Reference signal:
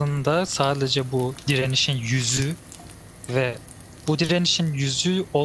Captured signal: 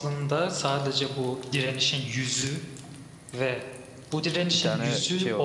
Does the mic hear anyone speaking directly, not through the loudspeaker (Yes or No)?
Yes